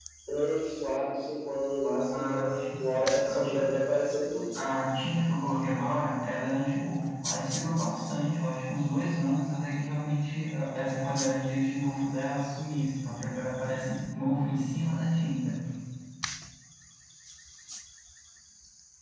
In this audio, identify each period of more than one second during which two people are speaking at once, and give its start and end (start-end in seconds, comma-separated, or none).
2.1-3.8